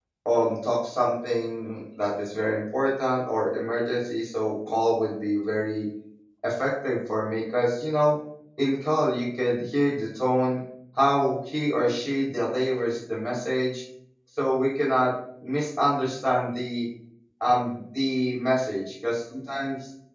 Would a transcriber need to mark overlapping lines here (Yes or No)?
No